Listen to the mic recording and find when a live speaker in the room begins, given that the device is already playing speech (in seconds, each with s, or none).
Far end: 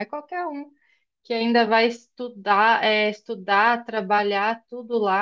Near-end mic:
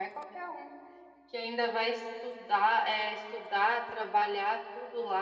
none